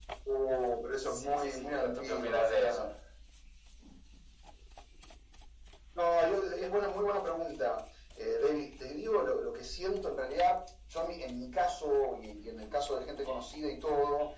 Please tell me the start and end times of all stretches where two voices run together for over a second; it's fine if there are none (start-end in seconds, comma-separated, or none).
1.1-2.9